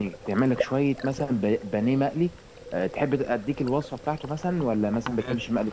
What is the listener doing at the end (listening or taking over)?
listening